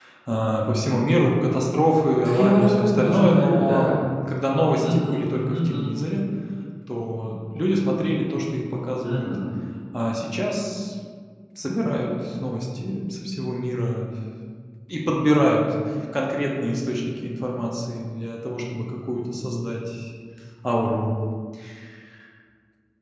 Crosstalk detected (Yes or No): Yes